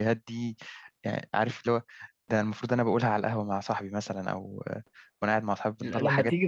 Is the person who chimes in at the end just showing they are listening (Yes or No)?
No